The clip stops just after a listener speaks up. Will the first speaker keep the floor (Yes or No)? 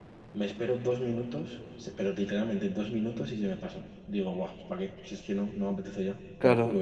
No